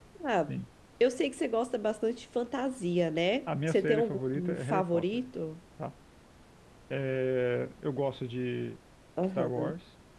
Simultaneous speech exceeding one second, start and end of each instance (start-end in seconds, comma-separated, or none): 3.5-5.2